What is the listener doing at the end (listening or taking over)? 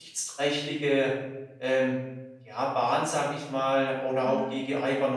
listening